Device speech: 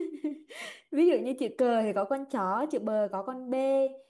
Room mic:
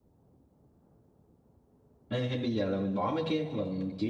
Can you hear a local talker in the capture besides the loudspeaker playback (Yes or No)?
Yes